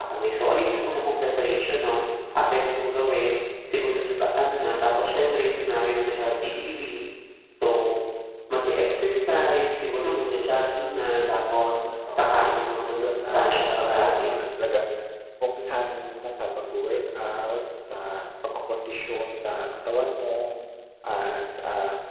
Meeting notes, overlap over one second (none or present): present